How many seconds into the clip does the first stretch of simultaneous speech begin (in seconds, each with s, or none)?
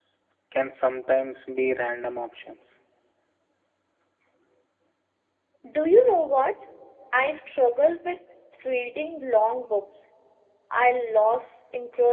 none